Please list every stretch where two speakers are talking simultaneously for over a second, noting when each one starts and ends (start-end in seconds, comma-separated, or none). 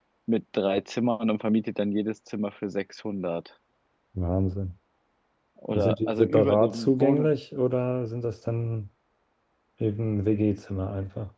5.7-7.3